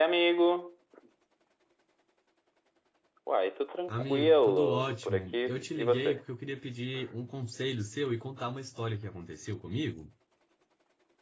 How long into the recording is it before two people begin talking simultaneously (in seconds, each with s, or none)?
3.9 s